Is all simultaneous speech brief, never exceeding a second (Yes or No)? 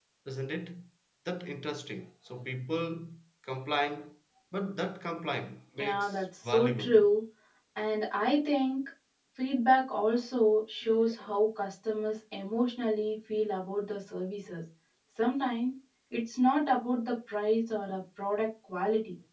No